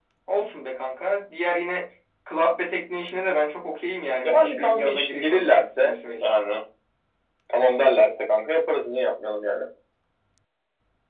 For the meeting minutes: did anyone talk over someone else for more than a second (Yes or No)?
Yes